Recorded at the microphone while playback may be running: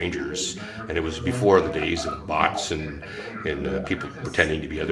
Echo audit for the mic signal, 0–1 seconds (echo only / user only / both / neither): both